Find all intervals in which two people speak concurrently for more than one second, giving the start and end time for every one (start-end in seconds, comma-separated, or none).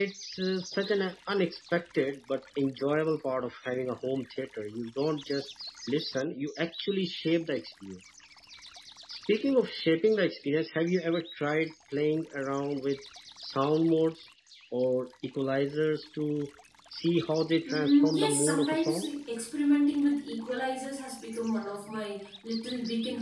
17.7-19.1